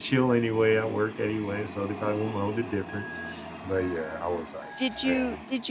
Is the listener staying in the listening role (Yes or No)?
No